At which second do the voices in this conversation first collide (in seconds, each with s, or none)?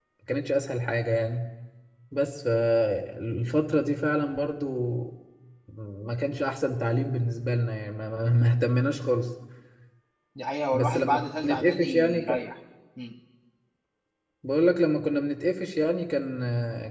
10.7 s